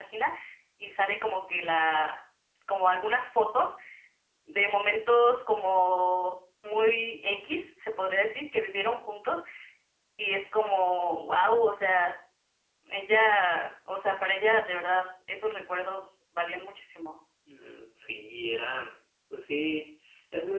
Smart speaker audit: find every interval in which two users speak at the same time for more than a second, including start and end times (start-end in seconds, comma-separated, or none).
none